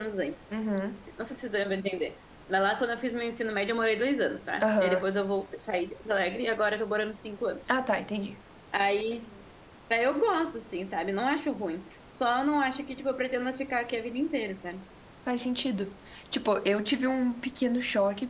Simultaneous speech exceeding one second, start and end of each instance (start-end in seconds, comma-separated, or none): none